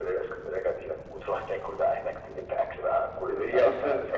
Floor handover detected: Yes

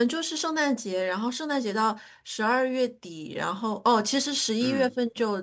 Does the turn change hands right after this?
No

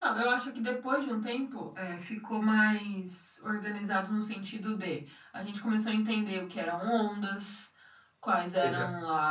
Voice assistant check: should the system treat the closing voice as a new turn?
No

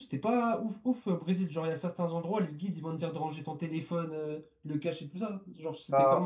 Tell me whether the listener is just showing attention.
No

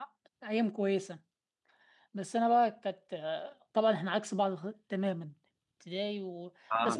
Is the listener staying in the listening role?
Yes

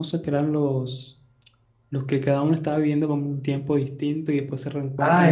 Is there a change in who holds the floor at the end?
Yes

